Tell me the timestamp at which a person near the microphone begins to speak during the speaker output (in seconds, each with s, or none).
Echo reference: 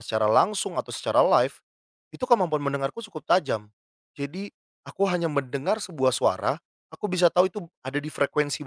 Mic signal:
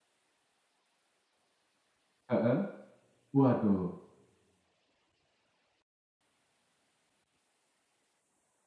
2.3 s